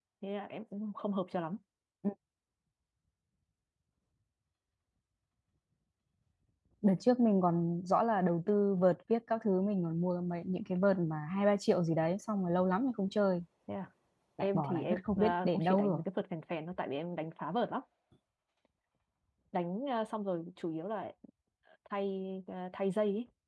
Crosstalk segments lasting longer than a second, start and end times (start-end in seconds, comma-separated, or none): 14.4-16.0